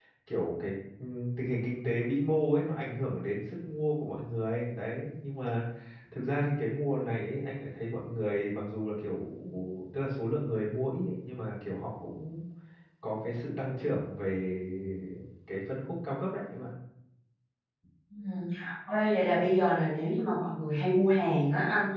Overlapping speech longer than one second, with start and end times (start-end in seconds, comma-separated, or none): none